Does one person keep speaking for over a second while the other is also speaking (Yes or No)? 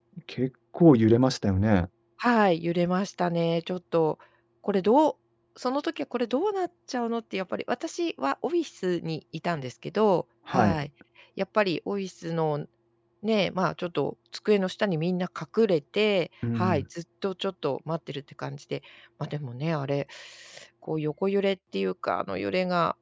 No